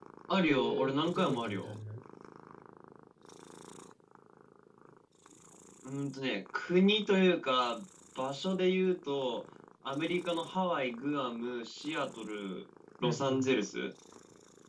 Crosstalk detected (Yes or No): Yes